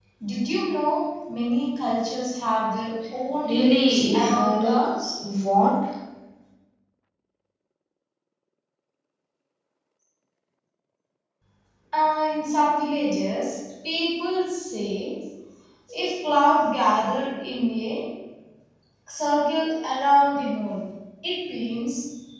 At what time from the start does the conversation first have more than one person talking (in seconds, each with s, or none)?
3.4 s